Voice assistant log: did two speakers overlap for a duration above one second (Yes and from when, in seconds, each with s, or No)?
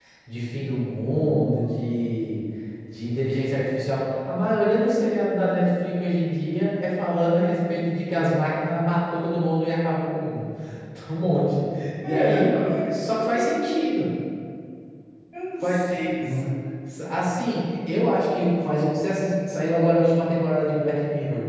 Yes, from 12.0 s